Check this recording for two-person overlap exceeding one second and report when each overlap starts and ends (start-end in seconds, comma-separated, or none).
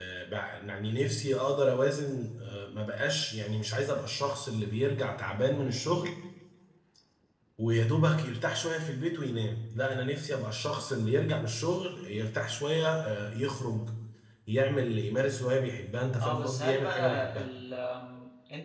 16.2-17.5